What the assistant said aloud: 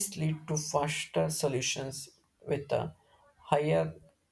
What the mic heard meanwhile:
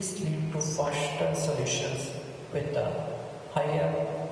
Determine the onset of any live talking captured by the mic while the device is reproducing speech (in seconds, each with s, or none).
none